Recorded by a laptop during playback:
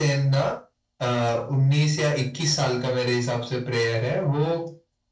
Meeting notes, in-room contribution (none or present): none